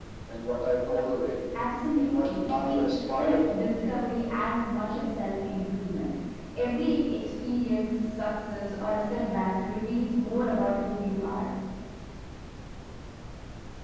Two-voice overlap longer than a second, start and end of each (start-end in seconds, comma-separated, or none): 2.0-3.6